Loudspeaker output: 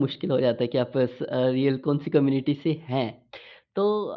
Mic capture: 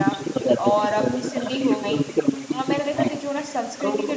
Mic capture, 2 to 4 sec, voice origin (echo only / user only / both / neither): both